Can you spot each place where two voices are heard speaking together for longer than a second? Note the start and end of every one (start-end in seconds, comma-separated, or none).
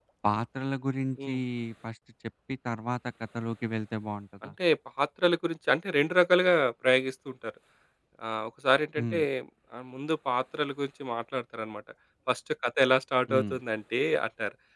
none